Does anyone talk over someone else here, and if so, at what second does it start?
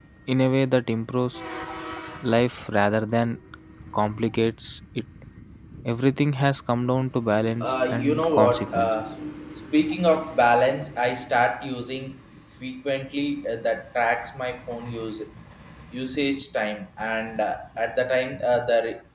7.6 s

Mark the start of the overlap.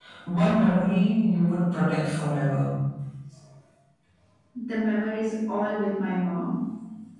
none

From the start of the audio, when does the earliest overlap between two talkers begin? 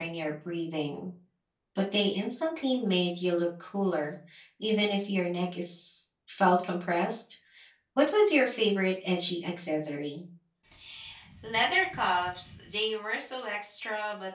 none

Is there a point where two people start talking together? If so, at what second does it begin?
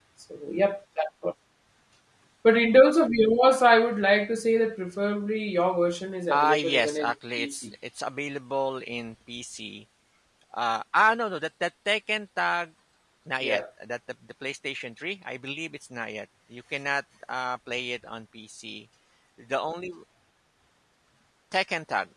6.3 s

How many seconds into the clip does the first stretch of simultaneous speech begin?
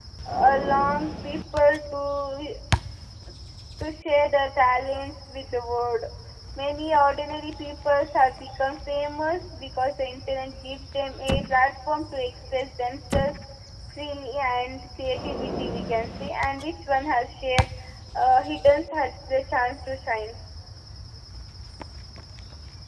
none

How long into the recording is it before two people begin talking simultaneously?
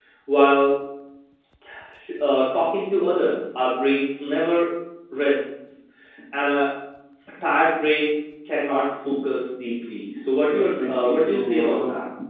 10.4 s

